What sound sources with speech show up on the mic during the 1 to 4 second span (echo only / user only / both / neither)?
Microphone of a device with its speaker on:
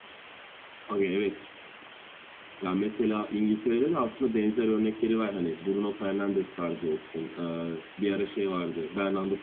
echo only